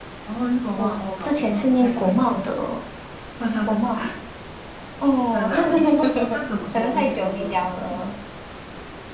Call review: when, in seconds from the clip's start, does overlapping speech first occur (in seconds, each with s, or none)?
0.8 s